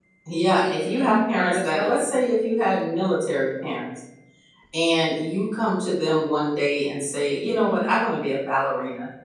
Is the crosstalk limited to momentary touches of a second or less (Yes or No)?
No